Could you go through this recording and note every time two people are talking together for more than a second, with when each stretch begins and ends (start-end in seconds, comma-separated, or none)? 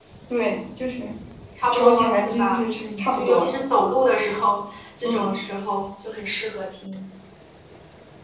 1.7-3.5